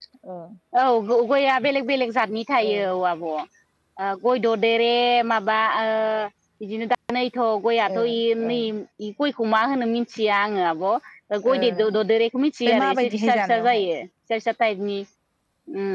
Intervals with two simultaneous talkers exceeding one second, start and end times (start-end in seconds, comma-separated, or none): 12.6-13.9